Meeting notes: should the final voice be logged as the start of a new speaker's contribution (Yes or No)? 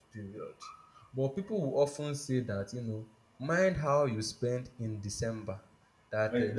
Yes